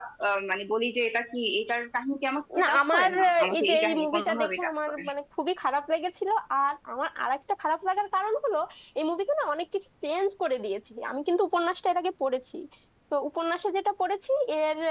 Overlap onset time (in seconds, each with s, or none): 2.5 s